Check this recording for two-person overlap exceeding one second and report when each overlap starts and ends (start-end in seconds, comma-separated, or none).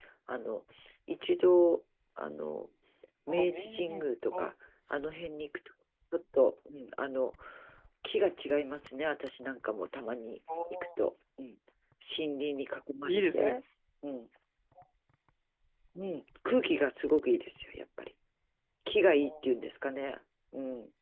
3.3-4.5